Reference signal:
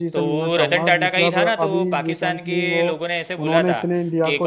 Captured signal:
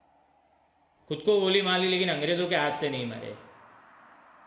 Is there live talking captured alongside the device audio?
Yes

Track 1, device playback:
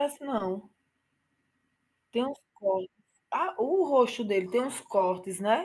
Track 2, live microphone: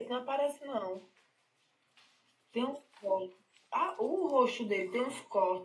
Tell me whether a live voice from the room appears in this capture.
No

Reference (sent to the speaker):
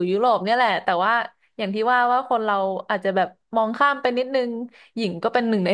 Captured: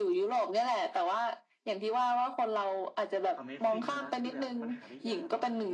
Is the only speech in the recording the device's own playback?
No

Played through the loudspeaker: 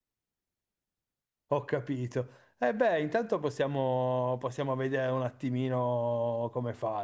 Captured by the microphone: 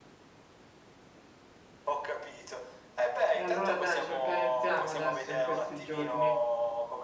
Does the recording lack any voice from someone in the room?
No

